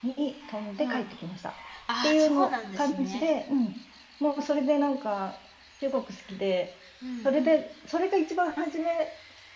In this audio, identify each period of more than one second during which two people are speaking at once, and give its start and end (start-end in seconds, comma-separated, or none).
2.0-3.3